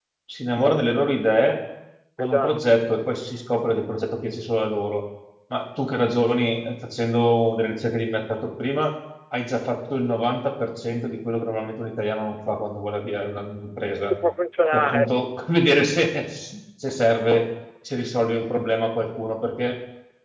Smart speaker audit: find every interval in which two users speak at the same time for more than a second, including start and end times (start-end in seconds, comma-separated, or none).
none